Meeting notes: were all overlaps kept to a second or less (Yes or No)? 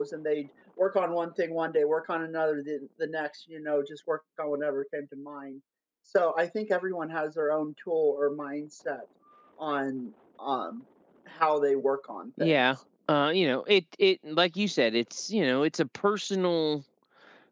Yes